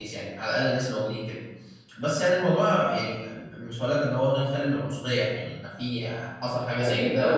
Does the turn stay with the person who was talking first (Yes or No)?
No